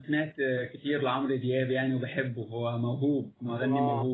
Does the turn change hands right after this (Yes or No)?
Yes